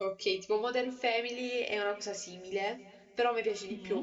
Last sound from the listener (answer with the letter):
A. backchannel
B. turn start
A